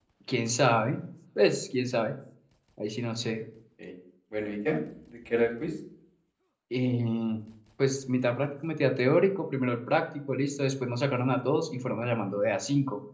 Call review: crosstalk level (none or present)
none